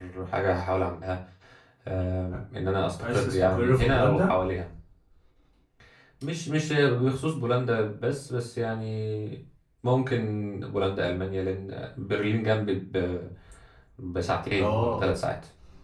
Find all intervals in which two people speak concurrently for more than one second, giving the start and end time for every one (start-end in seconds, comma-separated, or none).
3.0-4.3